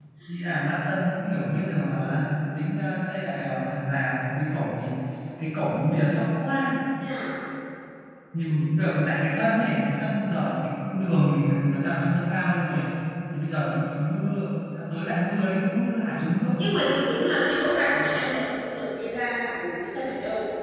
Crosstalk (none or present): none